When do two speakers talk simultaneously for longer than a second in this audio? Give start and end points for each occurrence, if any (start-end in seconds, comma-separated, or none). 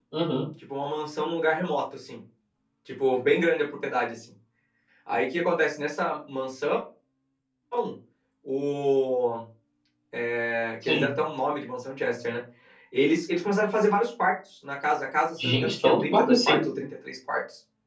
15.4-16.6